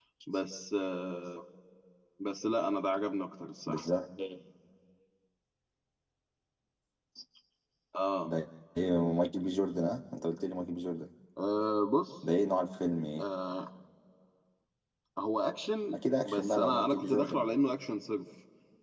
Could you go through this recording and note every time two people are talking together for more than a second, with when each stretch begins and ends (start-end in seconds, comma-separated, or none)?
15.9-17.5